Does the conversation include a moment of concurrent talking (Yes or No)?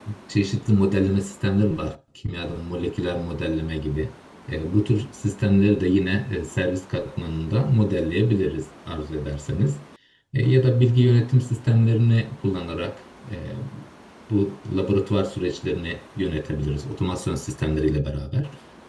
No